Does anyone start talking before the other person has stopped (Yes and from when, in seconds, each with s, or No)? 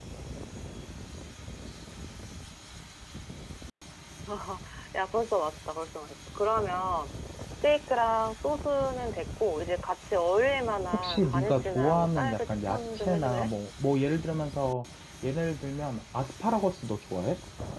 Yes, from 11.0 s